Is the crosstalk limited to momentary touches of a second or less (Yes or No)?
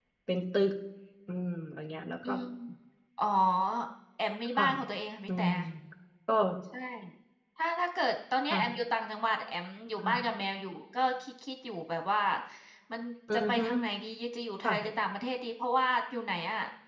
Yes